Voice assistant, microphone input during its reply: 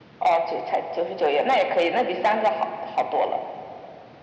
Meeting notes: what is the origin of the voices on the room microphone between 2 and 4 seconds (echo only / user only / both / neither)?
echo only